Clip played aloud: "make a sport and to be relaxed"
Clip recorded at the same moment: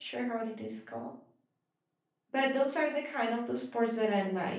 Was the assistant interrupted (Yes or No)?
Yes